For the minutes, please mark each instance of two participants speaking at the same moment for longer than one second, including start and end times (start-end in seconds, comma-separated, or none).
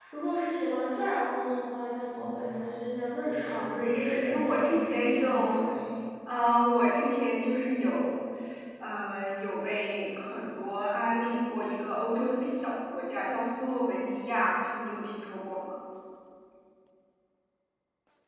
3.4-5.7